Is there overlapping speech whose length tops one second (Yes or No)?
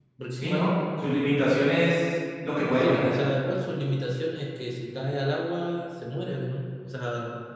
No